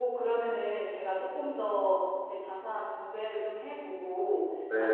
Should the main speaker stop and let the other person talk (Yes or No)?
No